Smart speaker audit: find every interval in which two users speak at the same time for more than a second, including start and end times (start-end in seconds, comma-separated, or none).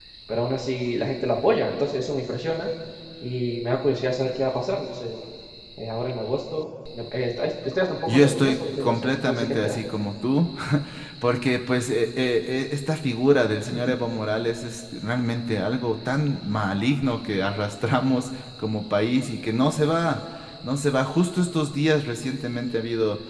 8.1-9.8